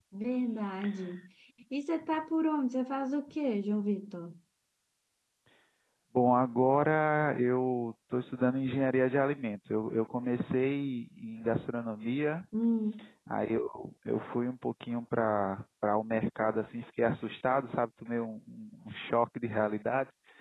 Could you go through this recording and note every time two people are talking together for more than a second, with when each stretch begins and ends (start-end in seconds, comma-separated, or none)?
none